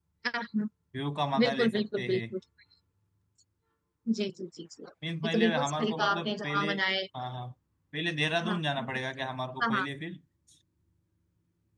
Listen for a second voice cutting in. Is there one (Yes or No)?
Yes